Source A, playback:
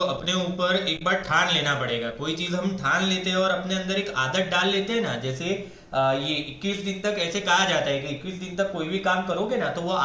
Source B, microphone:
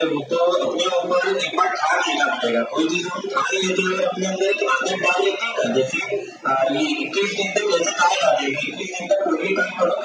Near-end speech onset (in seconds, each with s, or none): none